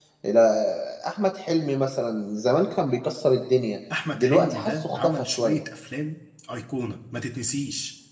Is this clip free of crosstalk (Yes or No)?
No